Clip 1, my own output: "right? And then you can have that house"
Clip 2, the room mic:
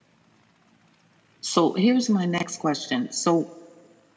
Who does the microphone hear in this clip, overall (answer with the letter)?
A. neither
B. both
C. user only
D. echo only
C